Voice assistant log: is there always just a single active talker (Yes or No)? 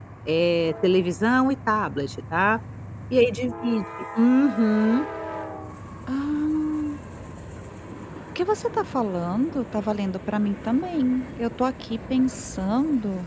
Yes